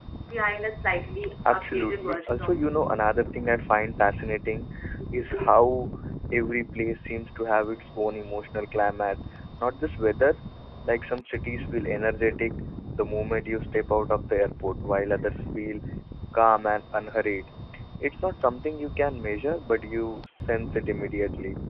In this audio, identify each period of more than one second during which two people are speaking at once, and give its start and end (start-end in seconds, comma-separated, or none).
1.5-2.9